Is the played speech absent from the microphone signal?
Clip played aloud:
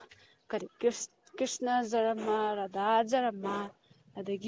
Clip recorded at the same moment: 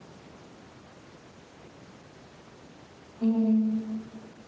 Yes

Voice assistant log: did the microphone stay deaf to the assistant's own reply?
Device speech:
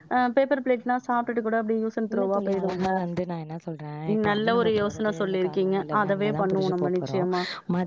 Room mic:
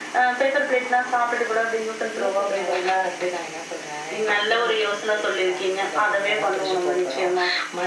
No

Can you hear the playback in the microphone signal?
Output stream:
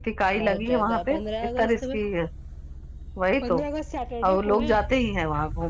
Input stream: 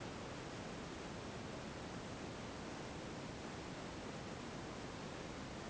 No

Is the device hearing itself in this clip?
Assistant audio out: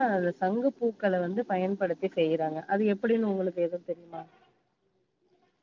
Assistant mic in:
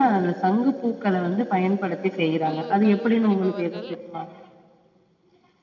Yes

